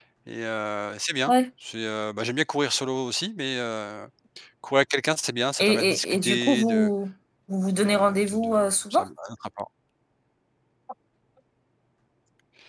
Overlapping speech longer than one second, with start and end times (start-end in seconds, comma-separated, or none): 5.6-6.9, 7.8-9.0